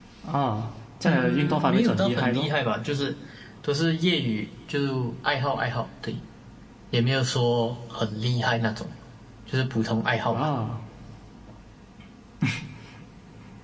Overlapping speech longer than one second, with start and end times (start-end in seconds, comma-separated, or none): 1.0-2.5